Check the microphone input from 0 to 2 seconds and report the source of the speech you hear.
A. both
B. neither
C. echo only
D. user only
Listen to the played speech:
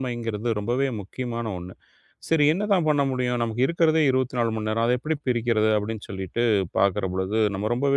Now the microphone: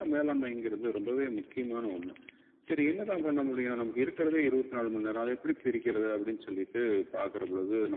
C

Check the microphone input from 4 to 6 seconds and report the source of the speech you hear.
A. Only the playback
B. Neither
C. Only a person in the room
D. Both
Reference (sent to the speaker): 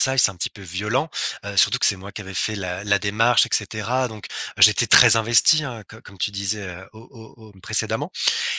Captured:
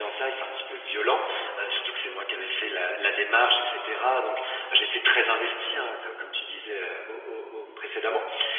A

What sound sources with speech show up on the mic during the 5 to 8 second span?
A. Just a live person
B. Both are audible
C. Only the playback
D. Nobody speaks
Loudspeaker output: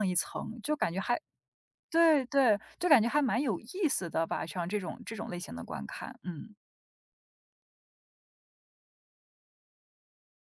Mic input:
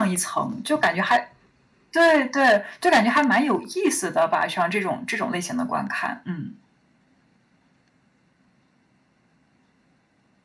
C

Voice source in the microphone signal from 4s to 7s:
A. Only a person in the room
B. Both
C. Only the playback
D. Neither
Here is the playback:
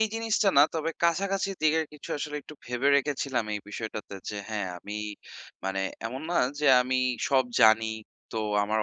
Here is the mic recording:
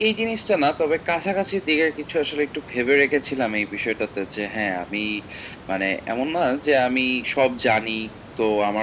C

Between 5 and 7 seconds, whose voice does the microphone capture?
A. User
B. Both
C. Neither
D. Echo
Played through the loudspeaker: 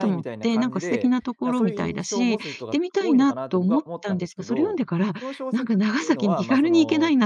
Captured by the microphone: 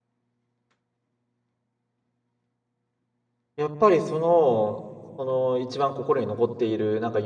A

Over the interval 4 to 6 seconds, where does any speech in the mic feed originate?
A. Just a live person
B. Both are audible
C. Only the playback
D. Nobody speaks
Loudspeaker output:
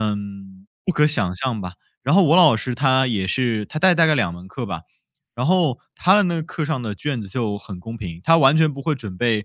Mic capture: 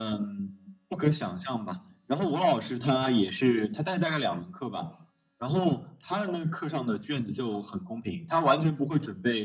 C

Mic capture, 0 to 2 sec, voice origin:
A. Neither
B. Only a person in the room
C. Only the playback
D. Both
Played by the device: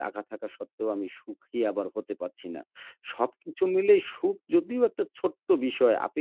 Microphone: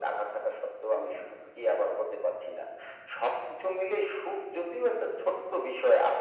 C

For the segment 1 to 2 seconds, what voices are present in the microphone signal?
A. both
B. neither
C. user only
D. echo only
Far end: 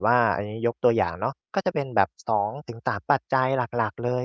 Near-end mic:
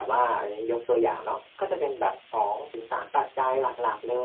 D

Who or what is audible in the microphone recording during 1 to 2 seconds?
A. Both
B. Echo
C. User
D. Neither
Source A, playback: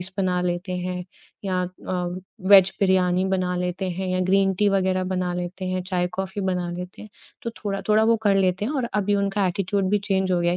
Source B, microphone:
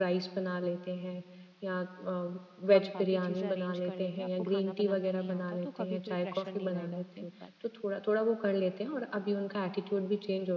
B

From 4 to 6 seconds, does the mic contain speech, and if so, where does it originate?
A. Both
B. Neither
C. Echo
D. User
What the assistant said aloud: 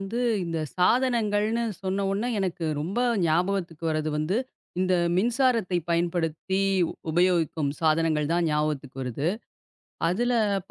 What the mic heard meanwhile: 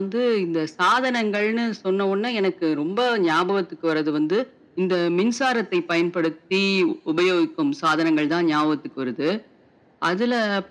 C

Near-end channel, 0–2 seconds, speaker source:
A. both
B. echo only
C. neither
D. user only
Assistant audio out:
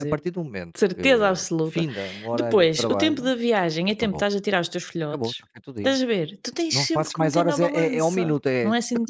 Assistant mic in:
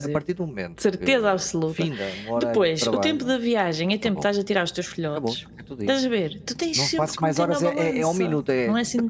B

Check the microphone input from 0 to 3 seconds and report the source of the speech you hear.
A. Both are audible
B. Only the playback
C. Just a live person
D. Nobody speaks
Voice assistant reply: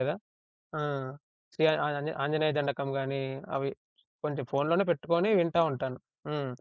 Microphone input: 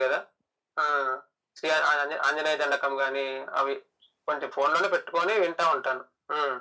B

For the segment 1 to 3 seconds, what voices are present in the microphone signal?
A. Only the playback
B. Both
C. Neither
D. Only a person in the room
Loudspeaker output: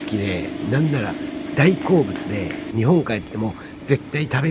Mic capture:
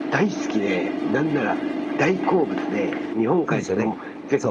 A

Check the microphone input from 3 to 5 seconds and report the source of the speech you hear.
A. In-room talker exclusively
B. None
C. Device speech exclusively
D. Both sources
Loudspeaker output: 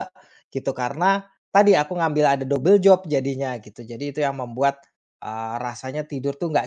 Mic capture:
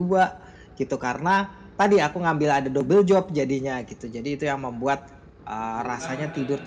C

